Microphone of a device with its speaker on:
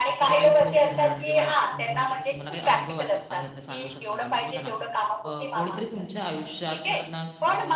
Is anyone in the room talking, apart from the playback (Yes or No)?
Yes